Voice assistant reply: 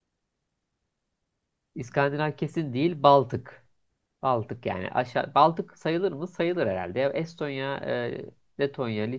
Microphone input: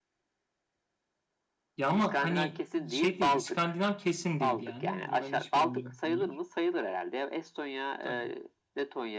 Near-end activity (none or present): present